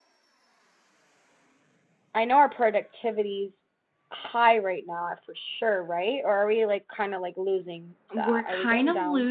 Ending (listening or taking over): taking over